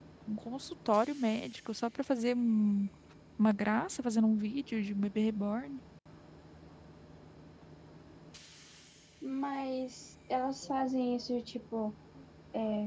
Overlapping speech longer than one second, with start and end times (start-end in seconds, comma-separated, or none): none